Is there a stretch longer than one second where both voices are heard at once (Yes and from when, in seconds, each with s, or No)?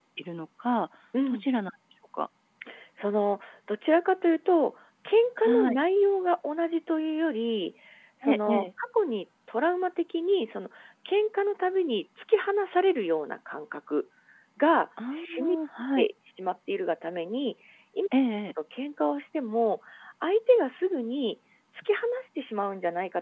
No